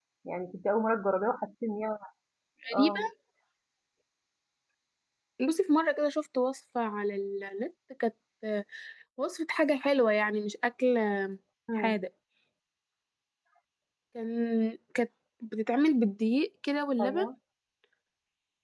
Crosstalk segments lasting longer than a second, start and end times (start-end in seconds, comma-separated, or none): none